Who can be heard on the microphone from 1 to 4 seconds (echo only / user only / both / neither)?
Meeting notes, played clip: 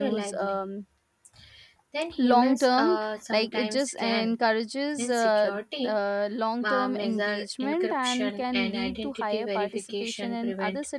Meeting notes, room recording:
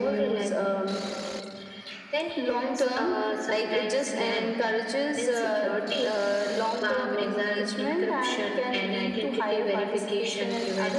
echo only